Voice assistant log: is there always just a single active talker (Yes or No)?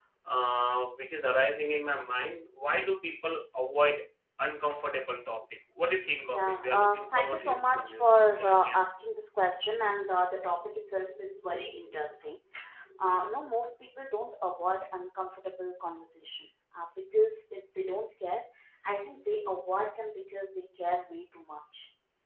No